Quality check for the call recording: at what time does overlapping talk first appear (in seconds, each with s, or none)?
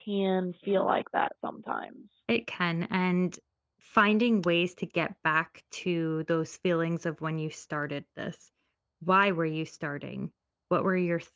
none